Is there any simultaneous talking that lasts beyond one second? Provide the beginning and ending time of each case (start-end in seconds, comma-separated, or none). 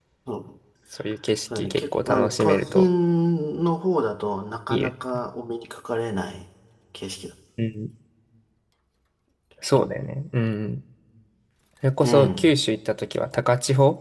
1.6-2.9